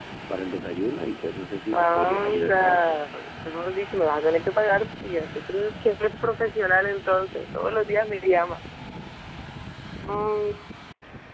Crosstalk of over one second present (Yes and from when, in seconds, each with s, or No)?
Yes, from 1.7 s